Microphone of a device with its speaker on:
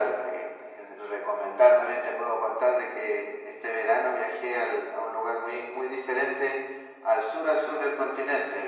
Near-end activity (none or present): none